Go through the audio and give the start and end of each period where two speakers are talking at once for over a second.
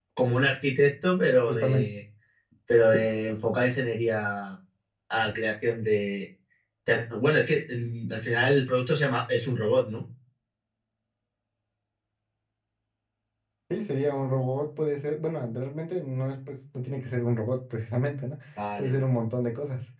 none

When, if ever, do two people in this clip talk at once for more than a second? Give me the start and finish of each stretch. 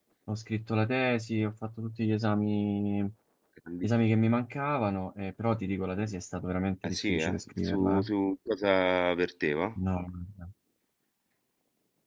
6.8-8.0

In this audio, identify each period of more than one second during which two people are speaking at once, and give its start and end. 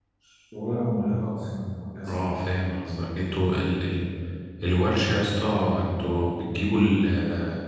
none

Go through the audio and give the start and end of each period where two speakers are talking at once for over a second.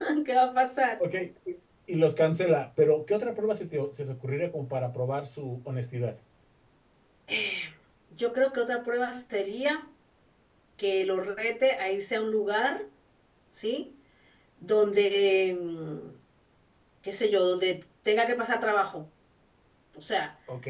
none

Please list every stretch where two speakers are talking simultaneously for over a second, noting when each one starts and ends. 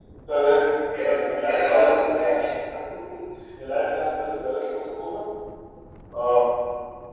1.0-2.4

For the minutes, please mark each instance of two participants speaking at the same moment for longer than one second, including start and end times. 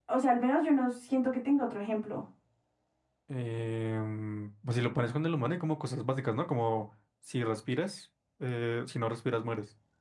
none

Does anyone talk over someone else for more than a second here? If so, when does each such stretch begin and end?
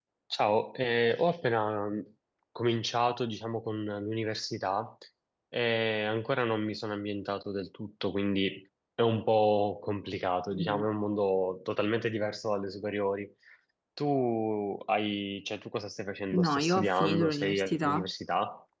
16.3-18.1

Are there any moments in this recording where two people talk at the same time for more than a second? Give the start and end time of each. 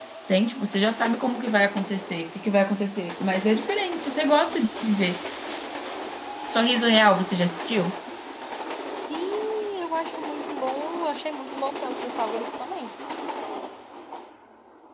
none

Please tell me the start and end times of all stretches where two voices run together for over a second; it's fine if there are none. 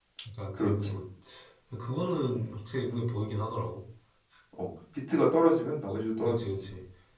none

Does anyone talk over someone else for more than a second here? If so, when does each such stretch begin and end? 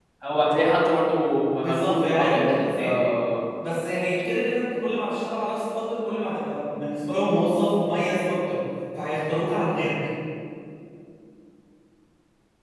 1.5-3.0

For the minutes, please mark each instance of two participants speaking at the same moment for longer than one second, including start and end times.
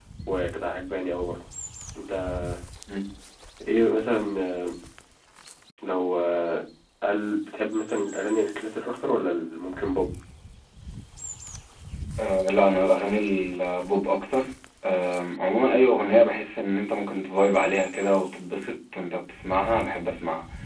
none

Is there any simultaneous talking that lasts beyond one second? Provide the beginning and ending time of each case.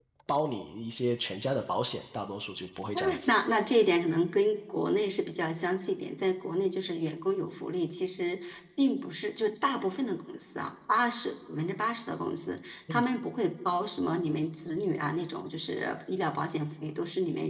none

